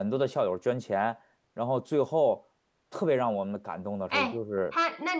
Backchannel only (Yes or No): No